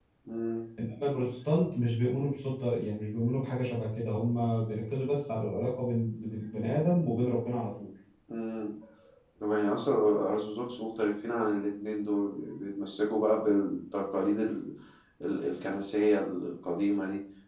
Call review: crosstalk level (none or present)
none